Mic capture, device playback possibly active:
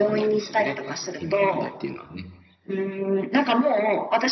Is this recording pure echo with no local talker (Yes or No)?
Yes